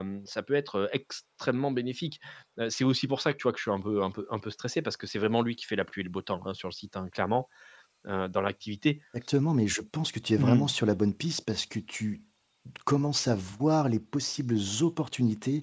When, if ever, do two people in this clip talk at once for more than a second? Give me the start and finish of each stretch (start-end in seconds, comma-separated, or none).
none